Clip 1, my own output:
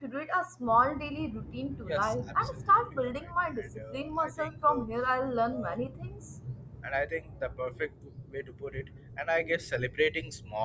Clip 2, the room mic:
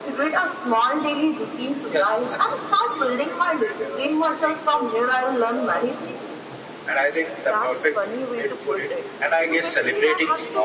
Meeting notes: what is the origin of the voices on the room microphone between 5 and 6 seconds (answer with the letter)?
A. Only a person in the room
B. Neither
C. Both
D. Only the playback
D